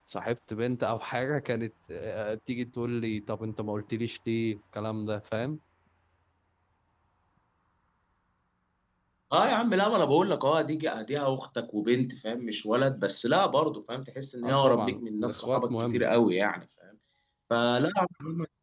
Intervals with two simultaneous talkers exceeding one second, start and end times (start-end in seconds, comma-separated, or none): 14.4-16.1